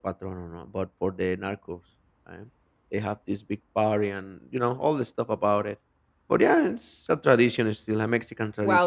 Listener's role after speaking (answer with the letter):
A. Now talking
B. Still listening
A